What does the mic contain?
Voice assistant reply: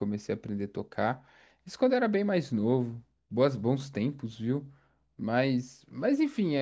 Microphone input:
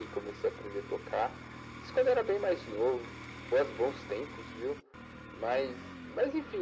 echo only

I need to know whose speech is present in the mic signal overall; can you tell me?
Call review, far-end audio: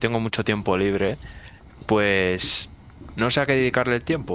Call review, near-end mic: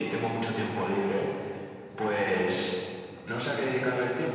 echo only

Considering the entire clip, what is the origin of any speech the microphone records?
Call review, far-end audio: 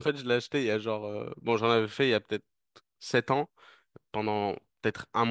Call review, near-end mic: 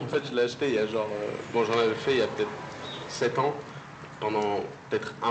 echo only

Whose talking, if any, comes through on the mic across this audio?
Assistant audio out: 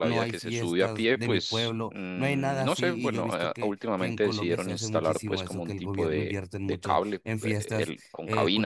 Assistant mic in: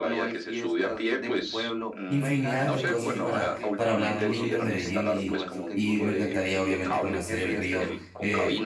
both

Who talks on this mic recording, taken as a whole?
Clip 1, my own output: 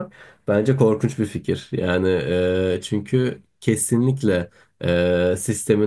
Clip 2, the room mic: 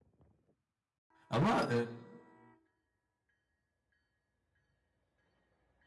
user only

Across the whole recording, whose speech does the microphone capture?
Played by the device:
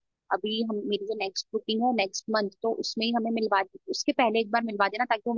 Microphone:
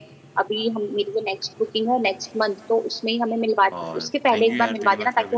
both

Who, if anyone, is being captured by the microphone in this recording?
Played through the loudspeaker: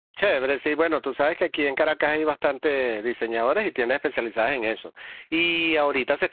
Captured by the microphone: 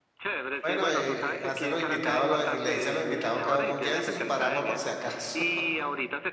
both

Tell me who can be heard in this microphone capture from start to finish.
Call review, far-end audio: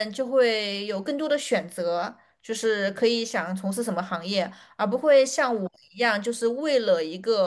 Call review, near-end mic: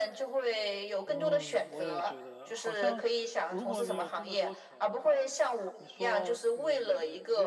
both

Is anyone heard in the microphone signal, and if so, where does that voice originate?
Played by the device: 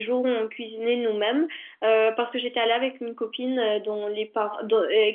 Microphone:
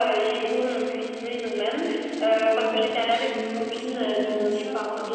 both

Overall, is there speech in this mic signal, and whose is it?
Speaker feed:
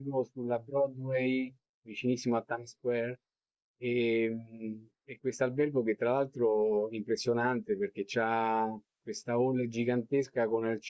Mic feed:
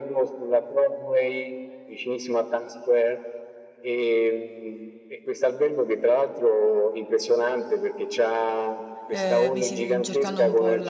both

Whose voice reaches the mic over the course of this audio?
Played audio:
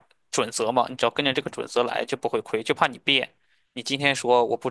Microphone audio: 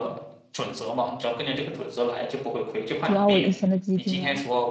both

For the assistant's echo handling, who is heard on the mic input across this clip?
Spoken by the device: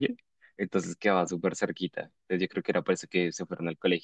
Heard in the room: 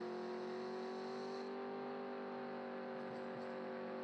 neither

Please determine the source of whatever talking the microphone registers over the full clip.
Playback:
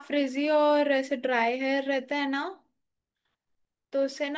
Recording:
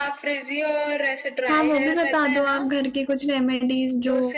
both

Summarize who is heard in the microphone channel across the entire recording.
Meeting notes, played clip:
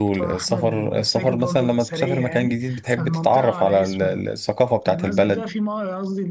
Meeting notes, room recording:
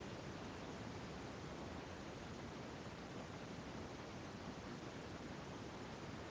neither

